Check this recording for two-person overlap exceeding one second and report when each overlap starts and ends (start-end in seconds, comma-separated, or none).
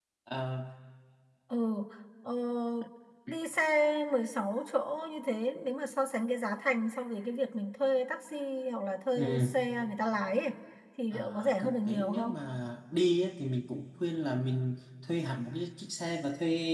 11.1-12.3